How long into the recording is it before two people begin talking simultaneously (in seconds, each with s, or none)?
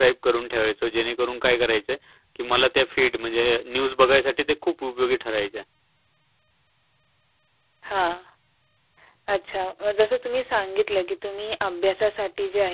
none